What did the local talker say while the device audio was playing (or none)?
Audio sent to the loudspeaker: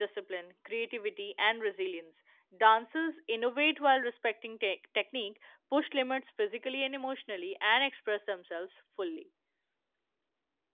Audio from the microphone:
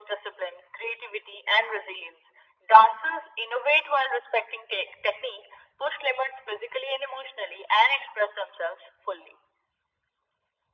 none